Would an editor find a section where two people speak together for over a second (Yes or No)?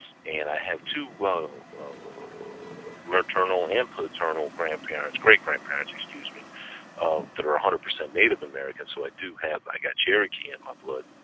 No